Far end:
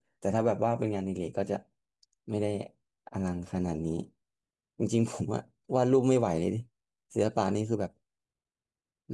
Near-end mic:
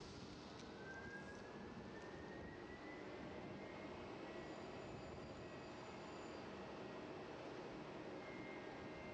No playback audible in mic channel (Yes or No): Yes